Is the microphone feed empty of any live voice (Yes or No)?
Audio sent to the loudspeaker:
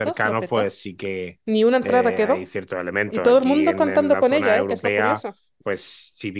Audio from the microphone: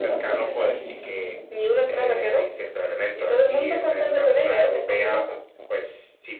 Yes